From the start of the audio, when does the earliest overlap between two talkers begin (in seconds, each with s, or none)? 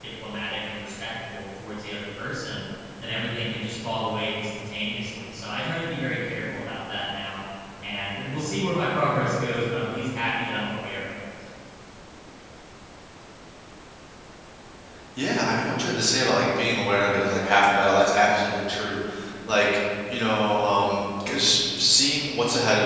none